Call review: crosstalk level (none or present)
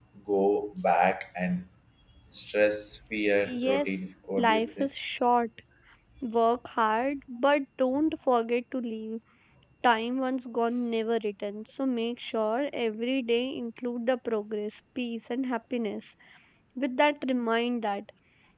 present